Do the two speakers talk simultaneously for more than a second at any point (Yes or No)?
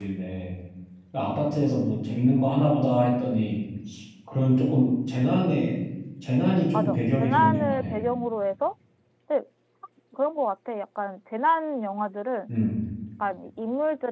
Yes